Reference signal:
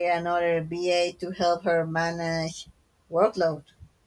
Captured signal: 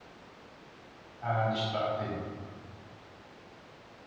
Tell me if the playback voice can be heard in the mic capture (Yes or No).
No